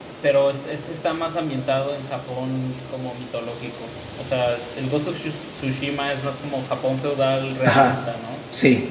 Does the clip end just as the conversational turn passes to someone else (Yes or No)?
Yes